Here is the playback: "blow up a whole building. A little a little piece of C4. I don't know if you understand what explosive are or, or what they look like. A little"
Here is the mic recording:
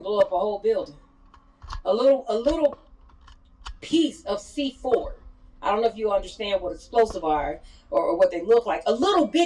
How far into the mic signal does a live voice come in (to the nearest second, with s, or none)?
none